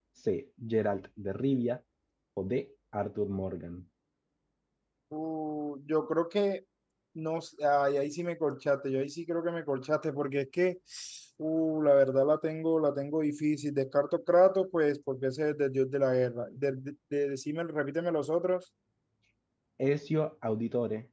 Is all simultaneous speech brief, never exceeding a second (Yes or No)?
Yes